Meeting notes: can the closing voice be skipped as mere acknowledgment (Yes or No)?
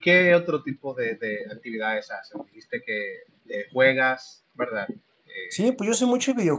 No